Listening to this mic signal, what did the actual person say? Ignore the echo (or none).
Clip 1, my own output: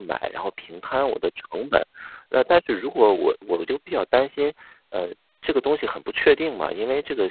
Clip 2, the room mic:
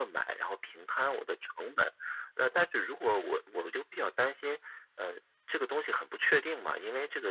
none